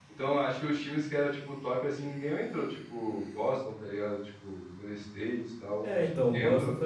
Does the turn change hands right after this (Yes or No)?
Yes